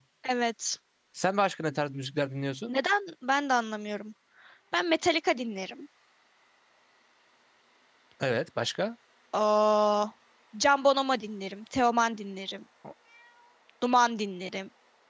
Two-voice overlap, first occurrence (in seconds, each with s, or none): none